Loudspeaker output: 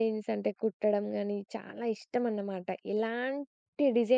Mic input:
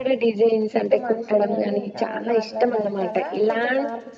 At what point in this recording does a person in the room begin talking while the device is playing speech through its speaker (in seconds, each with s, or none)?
0.7 s